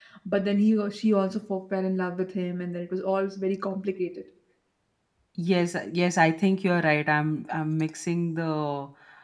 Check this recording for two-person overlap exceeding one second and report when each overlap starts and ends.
none

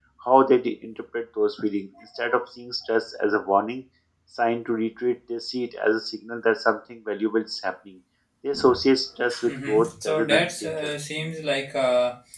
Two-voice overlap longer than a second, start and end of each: 9.4-10.9

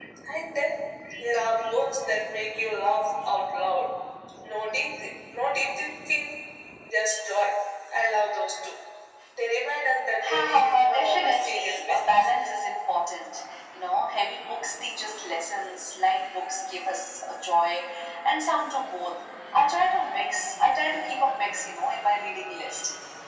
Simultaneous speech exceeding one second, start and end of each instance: 10.3-12.3

